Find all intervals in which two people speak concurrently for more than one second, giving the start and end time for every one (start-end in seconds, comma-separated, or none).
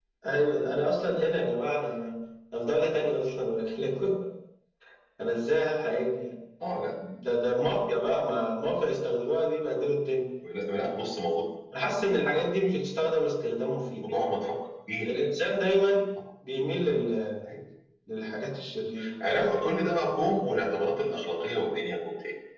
none